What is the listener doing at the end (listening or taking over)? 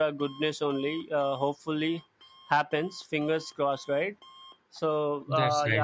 listening